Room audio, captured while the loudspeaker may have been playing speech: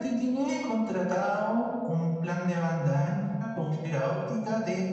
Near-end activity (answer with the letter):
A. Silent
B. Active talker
A